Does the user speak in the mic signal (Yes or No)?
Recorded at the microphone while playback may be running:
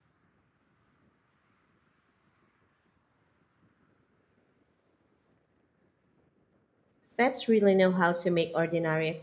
Yes